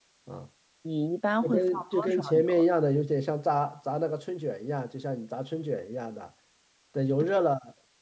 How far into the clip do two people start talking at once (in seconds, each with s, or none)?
1.4 s